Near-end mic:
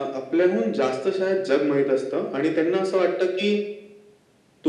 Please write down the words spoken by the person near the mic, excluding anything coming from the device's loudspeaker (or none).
none